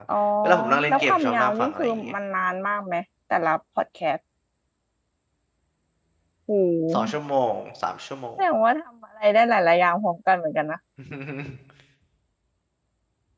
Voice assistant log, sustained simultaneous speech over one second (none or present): present